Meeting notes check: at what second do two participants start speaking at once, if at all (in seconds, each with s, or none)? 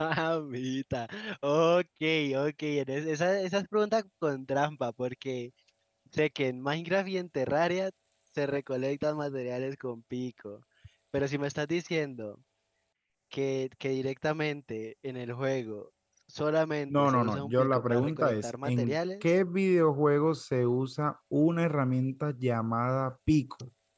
16.9 s